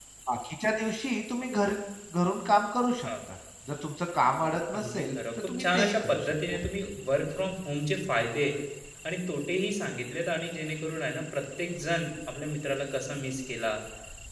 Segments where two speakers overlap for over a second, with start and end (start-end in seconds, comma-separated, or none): 4.8-6.6